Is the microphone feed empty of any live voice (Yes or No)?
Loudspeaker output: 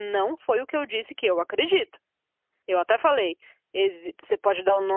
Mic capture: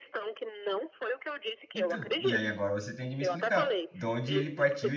No